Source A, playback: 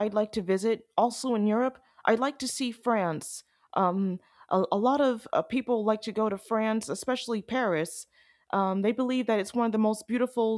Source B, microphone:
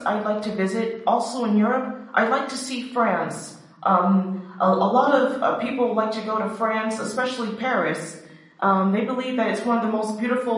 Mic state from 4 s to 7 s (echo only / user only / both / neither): echo only